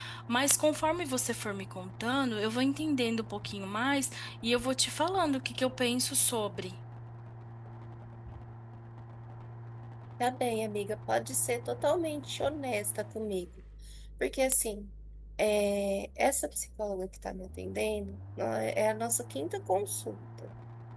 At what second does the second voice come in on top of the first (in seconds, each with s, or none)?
none